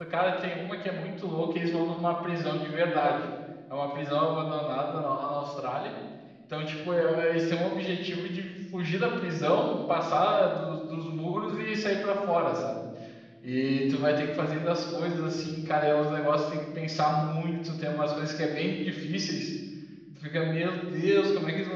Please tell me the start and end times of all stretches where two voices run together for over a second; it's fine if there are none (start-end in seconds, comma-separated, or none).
none